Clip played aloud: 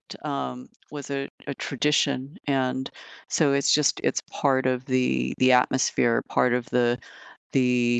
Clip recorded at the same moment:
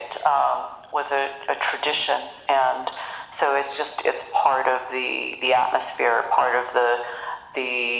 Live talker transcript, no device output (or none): none